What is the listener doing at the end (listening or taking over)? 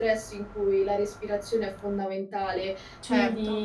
listening